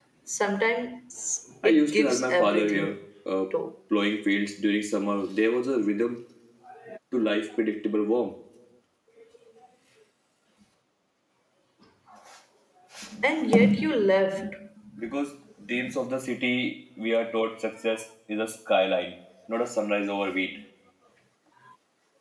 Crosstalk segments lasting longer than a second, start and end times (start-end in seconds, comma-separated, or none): 1.6-2.9